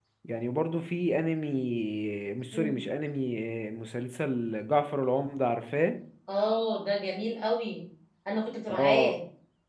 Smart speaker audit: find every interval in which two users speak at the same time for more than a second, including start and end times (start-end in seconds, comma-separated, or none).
none